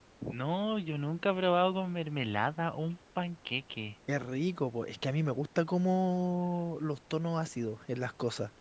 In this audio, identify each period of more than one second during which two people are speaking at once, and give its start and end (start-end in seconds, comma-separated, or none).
none